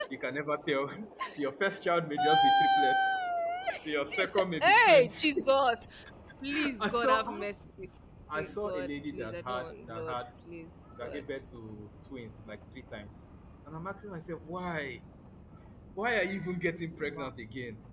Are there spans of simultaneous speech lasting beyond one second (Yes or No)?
Yes